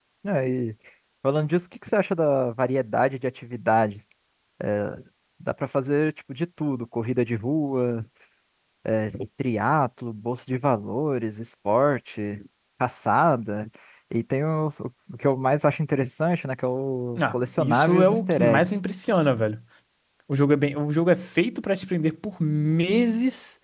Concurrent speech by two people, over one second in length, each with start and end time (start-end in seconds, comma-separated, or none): 17.2-18.7